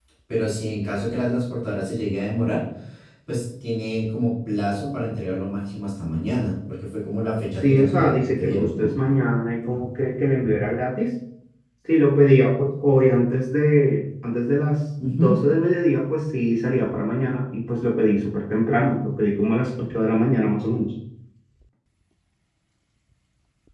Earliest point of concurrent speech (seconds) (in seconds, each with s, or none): 7.6 s